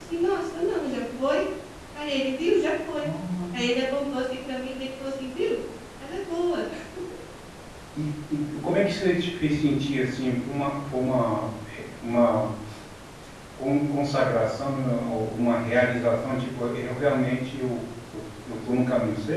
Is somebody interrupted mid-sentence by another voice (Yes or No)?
No